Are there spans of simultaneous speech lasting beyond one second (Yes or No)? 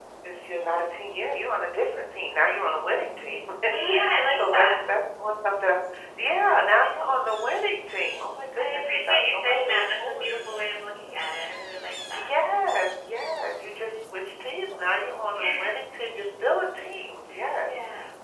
Yes